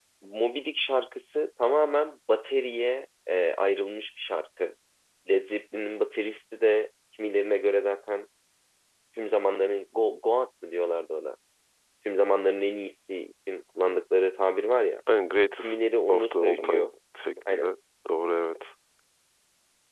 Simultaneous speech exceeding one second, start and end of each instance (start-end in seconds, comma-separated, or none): 15.6-16.9